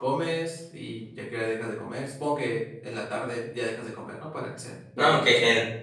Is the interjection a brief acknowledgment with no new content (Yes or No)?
No